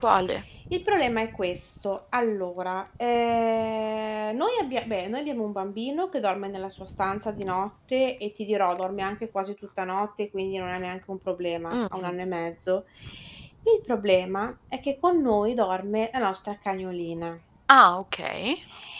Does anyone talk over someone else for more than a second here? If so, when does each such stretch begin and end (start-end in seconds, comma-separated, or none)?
none